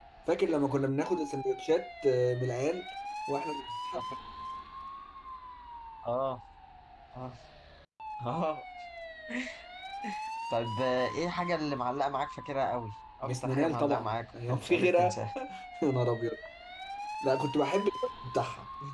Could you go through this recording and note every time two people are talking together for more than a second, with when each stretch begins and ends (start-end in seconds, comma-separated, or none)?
13.2-15.2